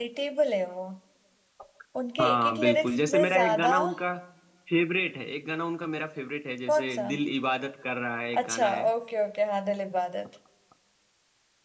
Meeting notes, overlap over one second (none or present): present